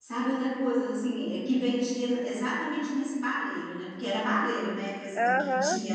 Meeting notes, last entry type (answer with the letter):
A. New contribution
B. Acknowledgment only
A